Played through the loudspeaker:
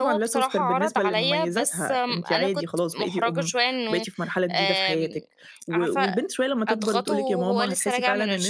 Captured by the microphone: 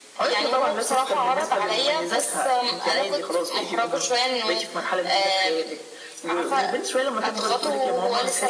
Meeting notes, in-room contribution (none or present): none